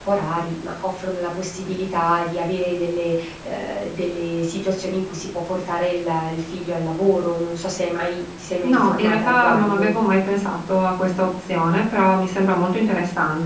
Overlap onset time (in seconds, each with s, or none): 8.6 s